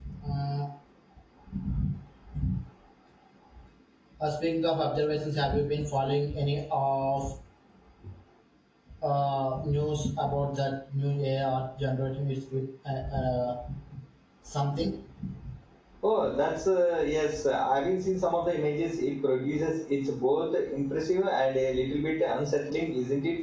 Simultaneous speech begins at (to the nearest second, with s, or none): none